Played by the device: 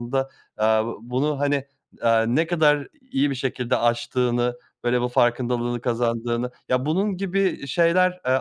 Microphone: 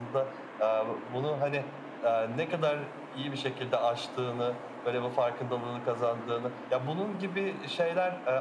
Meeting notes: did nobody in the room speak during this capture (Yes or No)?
Yes